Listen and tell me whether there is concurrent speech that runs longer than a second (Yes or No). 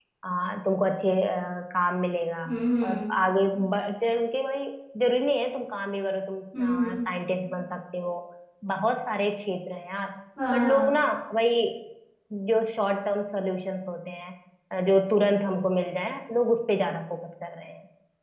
No